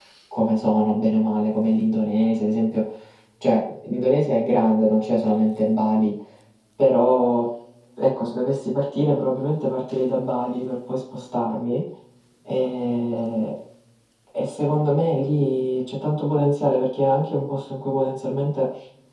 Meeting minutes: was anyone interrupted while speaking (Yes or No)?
No